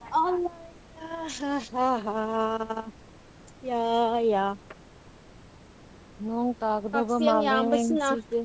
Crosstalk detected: Yes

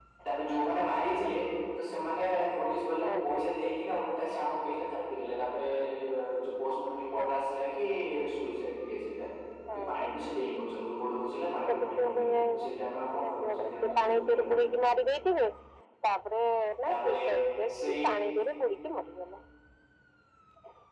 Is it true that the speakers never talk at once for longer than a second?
No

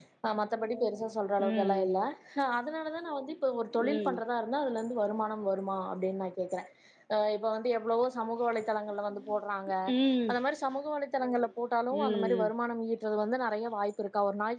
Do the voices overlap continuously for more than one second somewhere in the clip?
No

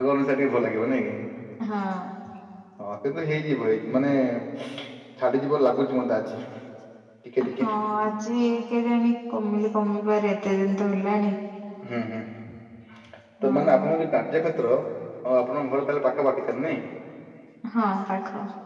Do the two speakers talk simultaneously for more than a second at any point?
No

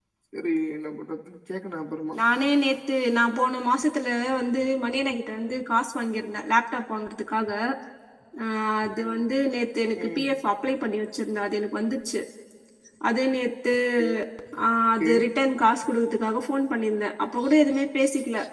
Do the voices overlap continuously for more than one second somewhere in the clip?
No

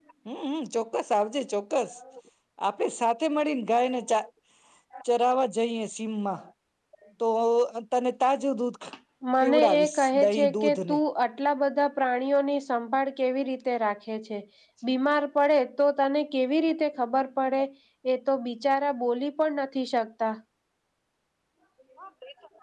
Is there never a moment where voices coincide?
No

